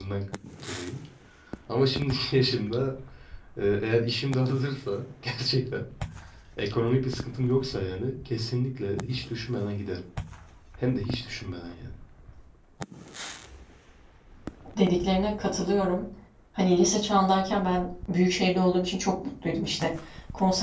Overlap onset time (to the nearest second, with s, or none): none